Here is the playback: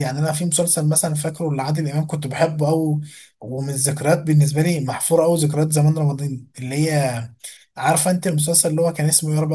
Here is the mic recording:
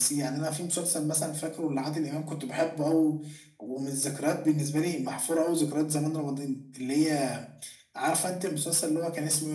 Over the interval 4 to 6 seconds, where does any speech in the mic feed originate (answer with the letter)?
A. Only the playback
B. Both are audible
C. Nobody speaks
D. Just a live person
A